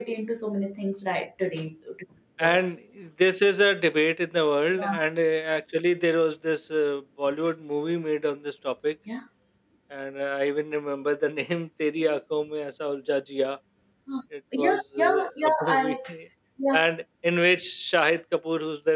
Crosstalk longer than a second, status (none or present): present